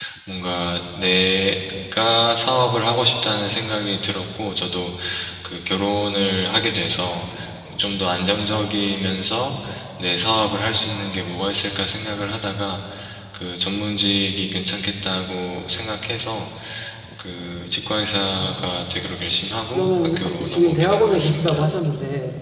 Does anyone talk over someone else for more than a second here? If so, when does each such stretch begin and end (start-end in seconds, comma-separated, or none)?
19.7-21.7